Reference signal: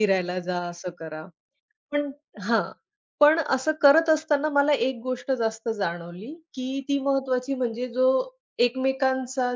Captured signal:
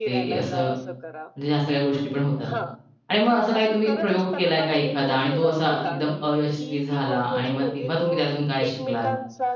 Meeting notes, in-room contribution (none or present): present